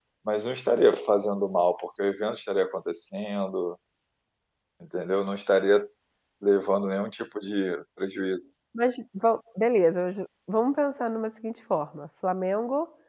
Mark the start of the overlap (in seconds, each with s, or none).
none